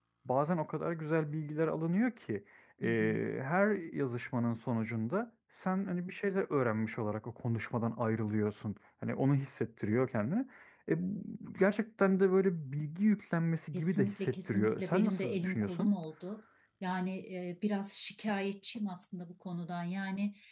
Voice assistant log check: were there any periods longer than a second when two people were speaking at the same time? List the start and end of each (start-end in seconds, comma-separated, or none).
13.7-15.9